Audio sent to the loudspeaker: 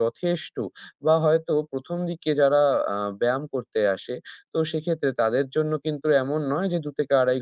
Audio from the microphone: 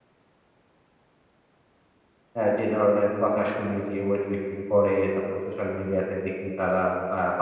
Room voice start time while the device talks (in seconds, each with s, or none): 2.3 s